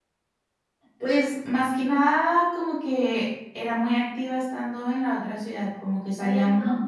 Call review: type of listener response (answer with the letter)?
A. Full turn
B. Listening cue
B